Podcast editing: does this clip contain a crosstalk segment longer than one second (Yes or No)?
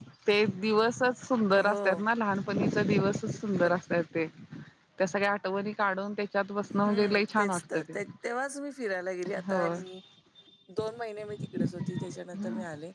Yes